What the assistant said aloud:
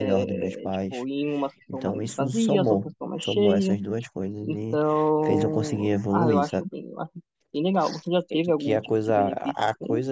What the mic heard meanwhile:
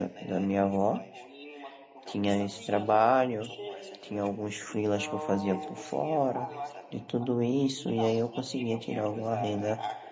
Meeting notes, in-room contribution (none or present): present